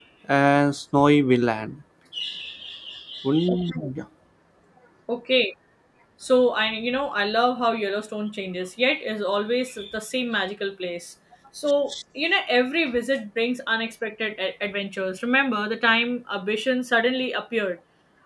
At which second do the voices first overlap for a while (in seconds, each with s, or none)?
none